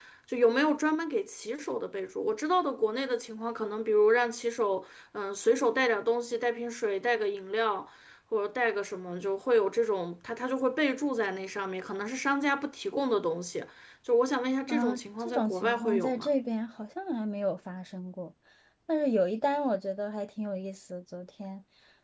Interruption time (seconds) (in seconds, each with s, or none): 14.7 s